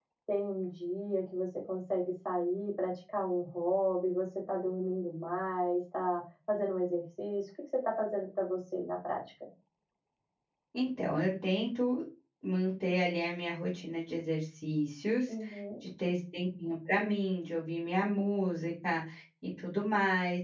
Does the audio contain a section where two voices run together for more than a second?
No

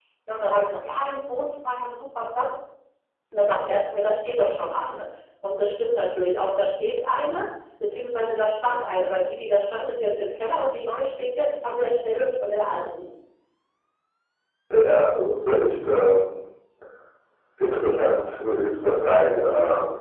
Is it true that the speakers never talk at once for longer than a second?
Yes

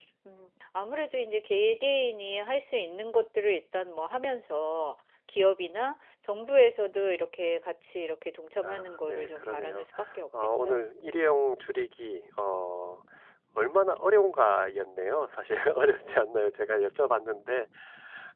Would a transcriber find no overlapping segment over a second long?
No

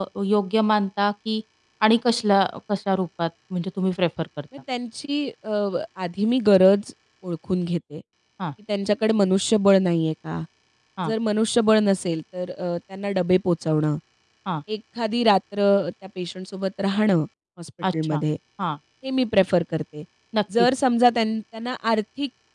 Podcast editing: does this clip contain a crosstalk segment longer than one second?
No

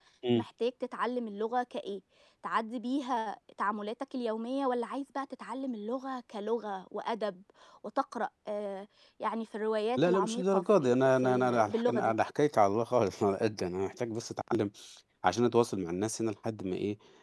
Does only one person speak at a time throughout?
No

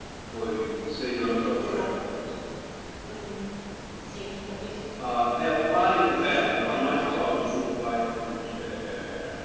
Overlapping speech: Yes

